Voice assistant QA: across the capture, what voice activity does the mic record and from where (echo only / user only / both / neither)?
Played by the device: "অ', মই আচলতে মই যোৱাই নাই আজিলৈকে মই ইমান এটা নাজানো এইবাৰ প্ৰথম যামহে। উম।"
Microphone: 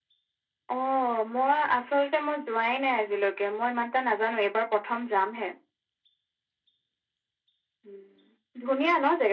echo only